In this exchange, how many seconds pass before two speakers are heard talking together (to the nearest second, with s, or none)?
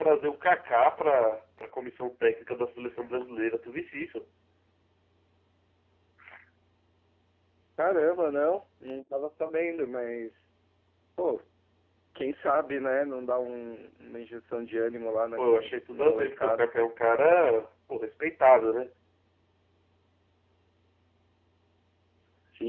15 s